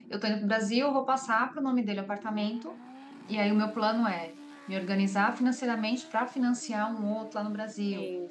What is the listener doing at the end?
listening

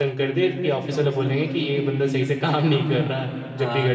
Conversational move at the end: taking over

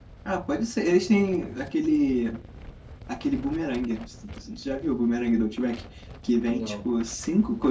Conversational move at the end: listening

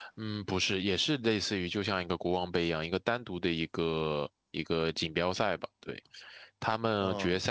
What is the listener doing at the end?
listening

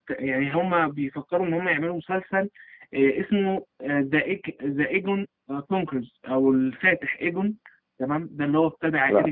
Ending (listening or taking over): listening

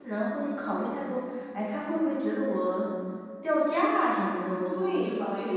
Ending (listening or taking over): taking over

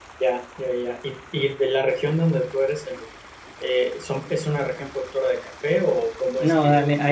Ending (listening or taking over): taking over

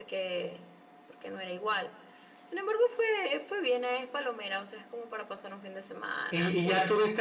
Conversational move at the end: taking over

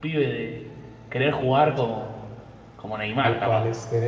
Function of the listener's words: taking over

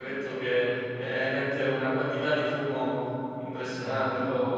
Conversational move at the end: taking over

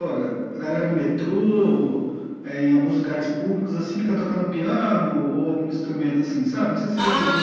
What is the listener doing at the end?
taking over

